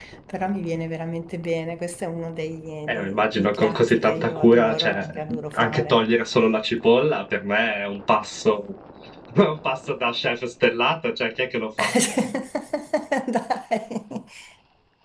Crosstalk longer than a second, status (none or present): present